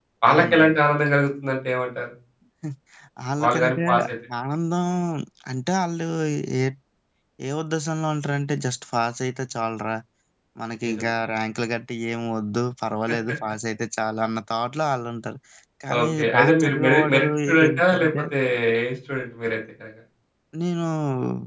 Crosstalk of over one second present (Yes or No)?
Yes